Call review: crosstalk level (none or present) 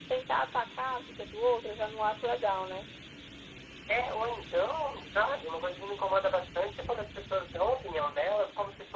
none